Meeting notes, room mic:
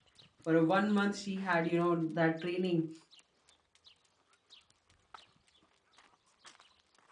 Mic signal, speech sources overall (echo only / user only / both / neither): user only